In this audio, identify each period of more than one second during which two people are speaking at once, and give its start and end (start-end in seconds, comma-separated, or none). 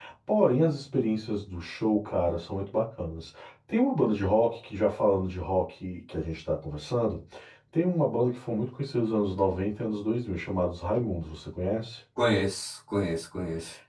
none